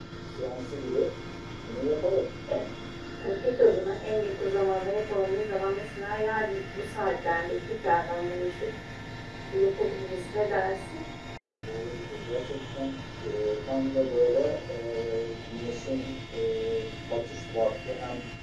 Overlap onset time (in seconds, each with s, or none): none